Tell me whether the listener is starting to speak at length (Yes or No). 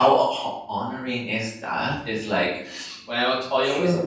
No